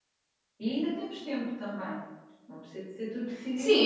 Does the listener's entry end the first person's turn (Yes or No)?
Yes